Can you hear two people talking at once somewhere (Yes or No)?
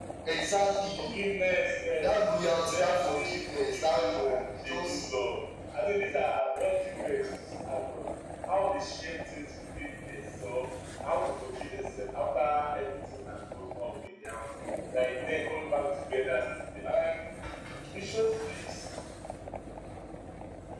Yes